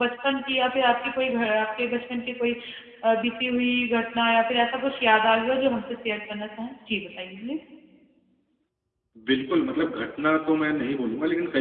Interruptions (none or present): none